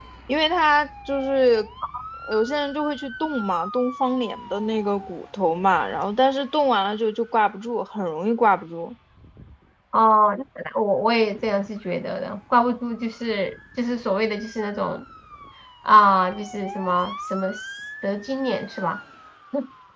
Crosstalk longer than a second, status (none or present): none